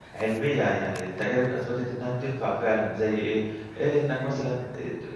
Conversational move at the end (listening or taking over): listening